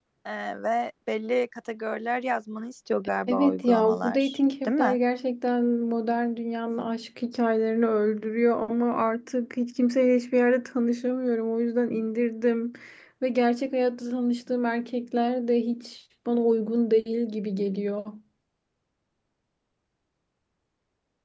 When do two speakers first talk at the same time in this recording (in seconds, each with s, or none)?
3.3 s